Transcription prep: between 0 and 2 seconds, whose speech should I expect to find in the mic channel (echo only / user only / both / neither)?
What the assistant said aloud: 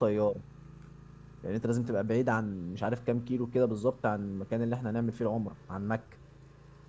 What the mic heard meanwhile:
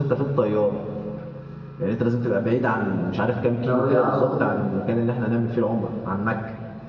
echo only